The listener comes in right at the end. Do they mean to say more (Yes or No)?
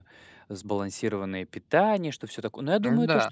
No